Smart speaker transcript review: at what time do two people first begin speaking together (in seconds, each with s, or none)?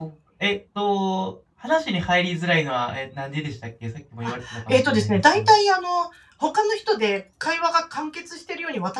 4.2 s